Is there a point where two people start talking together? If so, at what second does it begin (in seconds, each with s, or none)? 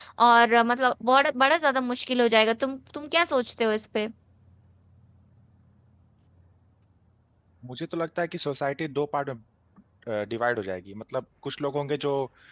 none